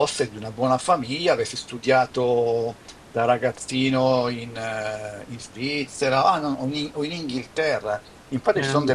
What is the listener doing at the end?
listening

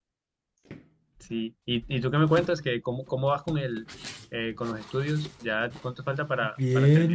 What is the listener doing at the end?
taking over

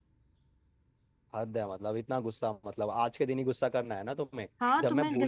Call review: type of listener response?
taking over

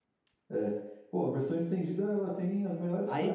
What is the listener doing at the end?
taking over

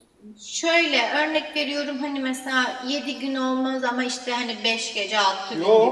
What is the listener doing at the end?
taking over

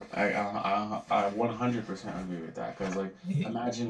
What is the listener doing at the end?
listening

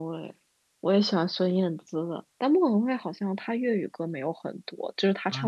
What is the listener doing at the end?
taking over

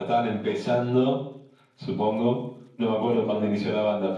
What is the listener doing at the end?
listening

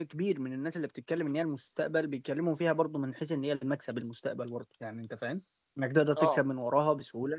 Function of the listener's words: listening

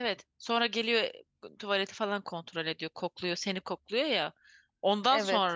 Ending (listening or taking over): listening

